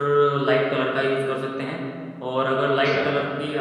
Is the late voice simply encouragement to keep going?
Yes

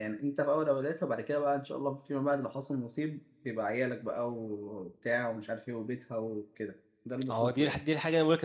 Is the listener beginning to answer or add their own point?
Yes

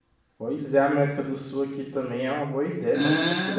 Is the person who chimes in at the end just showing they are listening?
No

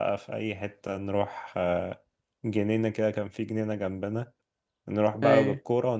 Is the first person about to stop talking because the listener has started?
No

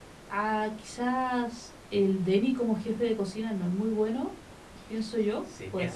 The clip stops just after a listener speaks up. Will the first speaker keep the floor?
No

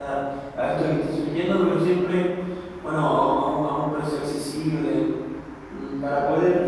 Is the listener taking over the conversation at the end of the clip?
No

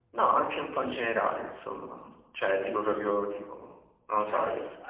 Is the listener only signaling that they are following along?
No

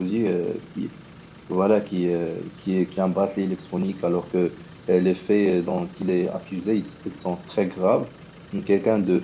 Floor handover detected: No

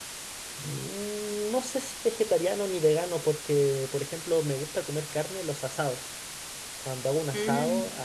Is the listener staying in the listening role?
Yes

